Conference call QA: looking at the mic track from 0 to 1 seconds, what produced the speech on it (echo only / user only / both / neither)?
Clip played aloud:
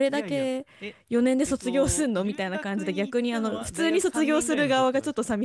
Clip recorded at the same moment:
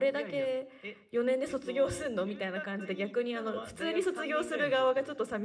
echo only